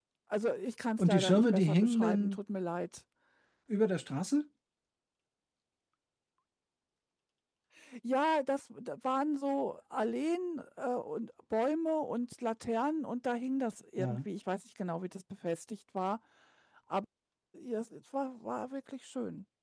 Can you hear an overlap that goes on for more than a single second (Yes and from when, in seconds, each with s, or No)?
Yes, from 1.0 s